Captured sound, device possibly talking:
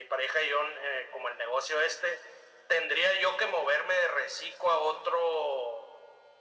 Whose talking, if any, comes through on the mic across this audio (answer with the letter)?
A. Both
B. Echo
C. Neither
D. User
B